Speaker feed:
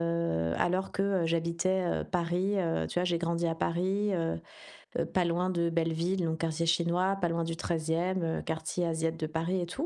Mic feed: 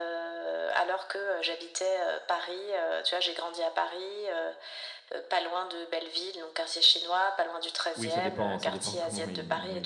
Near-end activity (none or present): present